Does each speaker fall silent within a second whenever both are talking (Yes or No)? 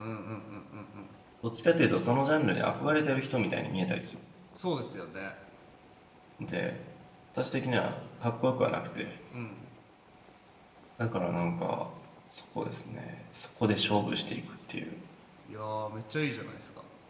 Yes